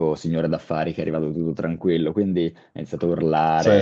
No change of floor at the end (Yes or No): Yes